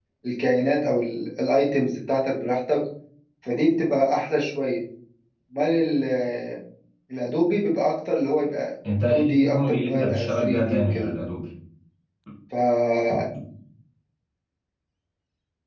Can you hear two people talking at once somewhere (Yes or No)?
Yes